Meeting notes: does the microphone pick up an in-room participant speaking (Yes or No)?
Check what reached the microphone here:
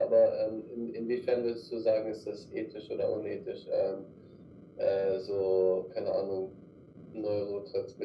No